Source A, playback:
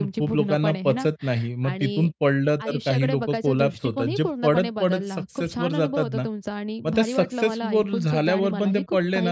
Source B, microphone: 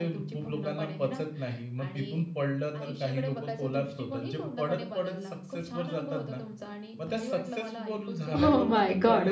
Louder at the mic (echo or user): user